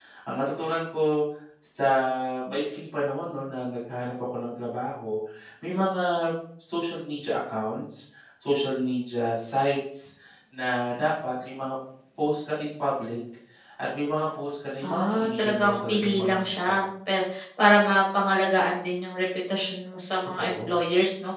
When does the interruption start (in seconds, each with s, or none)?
14.9 s